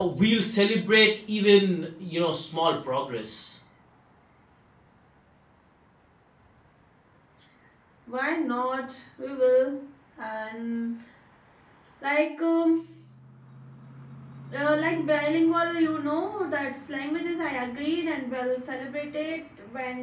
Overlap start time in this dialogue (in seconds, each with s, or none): none